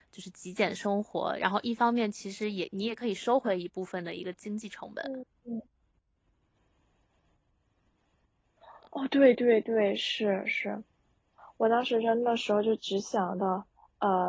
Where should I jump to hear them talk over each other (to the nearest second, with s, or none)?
none